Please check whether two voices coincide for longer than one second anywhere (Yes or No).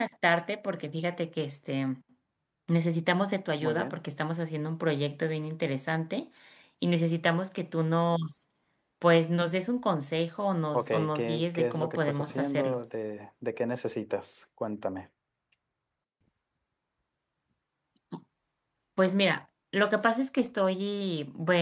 Yes